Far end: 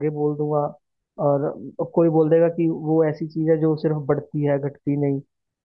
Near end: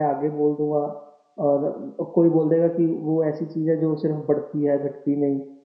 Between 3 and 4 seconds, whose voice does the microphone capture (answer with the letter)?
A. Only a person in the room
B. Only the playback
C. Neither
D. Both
B